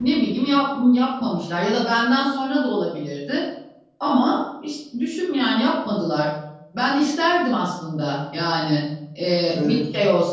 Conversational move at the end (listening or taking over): listening